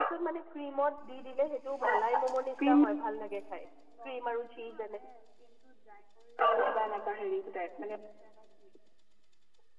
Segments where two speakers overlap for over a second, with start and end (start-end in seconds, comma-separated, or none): none